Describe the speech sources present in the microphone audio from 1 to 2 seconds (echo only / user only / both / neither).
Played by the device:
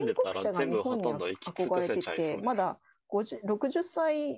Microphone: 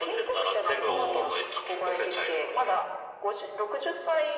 both